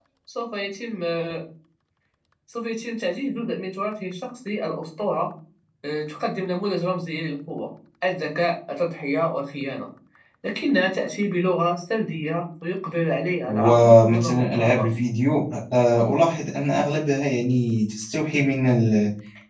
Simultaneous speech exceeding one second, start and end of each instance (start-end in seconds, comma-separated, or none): 13.5-15.0